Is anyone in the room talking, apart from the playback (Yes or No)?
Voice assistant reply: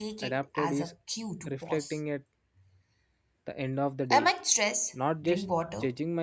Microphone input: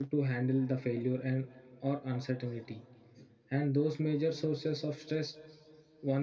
Yes